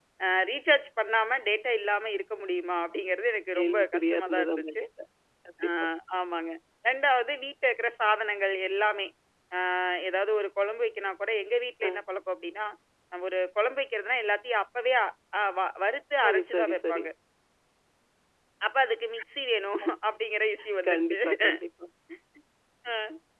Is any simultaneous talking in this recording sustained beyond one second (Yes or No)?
Yes